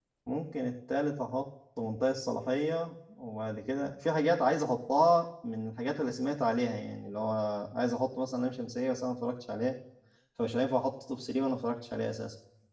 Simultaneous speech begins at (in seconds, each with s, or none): none